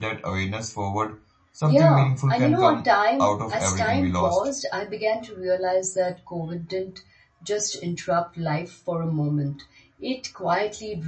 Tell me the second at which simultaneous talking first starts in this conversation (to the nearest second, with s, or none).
2 s